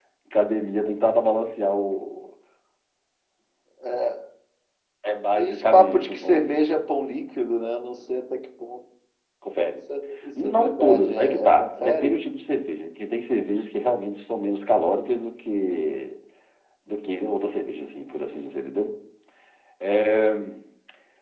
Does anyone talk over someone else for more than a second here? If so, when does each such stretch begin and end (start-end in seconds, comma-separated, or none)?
5.3-6.8, 10.3-12.2